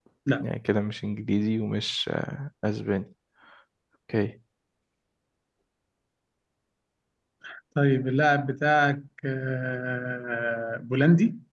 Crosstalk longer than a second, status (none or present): none